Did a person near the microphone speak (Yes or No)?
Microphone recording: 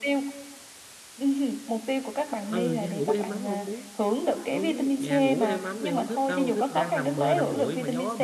Yes